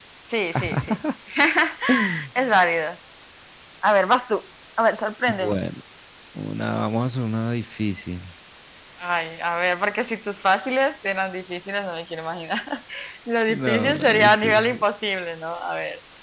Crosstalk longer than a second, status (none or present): present